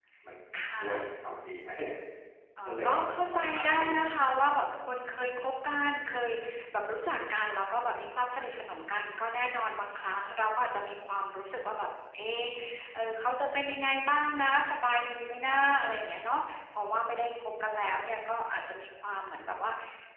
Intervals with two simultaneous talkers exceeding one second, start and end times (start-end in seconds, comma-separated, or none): 2.6-3.9